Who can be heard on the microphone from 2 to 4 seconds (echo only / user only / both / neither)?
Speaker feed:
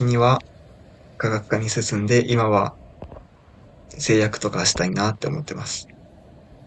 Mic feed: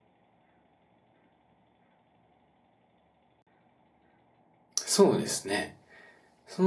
neither